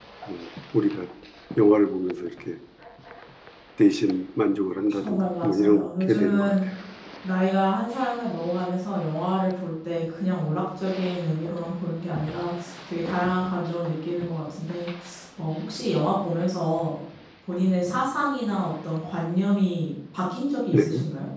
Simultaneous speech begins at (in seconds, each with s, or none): 4.9 s